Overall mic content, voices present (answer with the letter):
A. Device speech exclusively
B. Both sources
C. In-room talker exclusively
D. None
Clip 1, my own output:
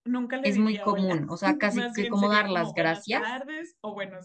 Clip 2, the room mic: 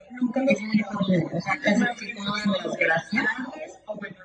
A